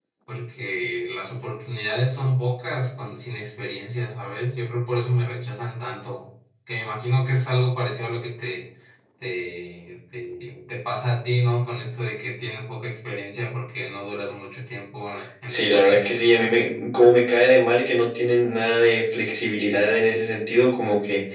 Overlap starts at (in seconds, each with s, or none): 15.5 s